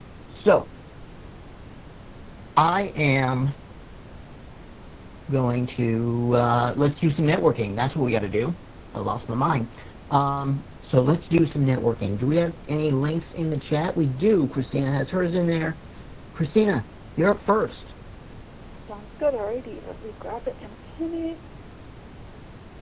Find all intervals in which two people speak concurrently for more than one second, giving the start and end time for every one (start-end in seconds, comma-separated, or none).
none